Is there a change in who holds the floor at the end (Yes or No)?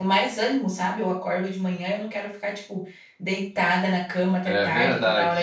No